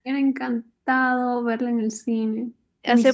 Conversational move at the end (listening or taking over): taking over